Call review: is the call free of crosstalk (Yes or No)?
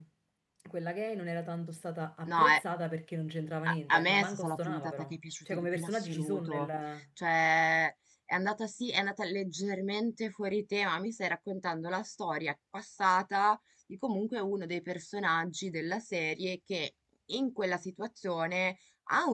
No